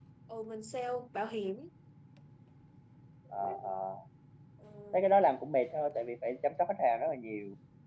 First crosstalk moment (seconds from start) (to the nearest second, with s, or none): none